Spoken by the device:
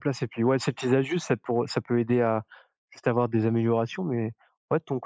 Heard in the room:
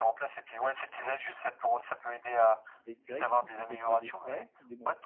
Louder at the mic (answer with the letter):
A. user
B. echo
B